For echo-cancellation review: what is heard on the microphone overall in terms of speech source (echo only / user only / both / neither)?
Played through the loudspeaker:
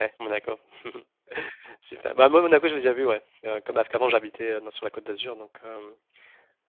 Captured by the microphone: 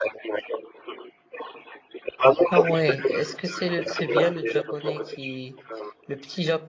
both